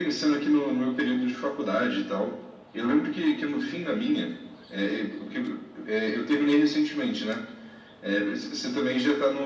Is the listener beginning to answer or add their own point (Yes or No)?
No